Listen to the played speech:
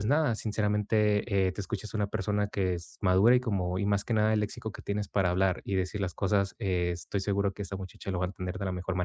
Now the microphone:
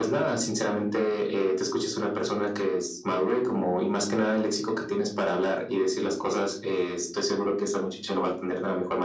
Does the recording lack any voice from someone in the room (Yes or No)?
Yes